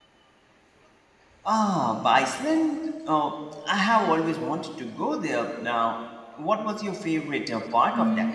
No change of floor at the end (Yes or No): No